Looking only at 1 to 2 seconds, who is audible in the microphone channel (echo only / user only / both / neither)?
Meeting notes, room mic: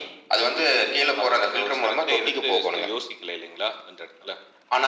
echo only